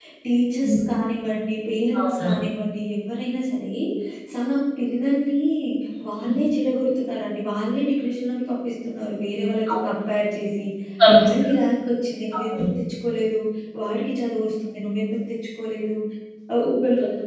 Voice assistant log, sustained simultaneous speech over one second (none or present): none